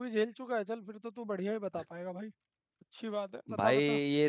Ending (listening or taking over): taking over